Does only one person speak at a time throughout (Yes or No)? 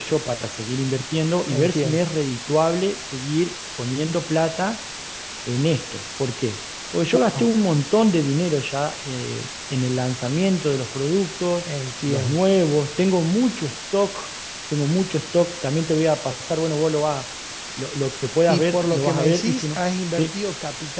No